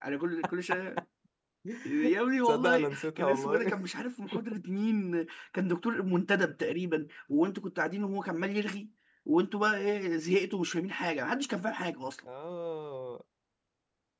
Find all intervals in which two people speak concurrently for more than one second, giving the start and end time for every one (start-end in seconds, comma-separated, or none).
2.5-3.8